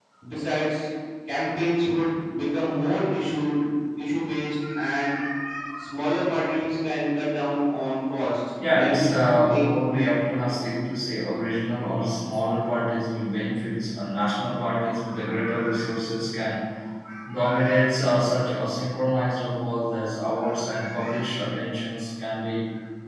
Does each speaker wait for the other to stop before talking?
No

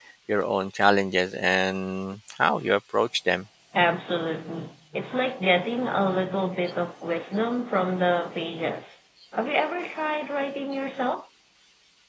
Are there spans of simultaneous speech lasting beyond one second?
No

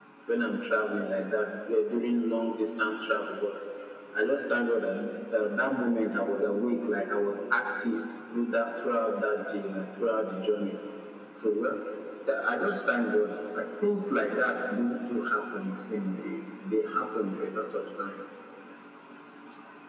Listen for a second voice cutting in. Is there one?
No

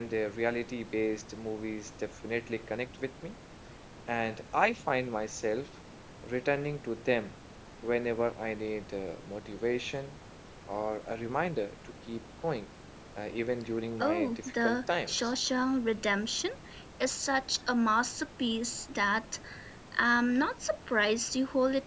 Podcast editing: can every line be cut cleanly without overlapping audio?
No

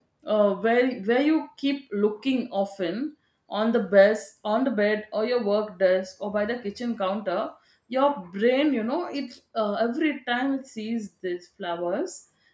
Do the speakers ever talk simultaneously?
No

